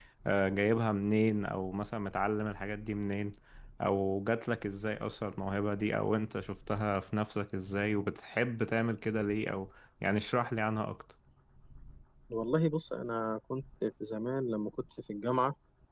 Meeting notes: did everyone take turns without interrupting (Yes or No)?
Yes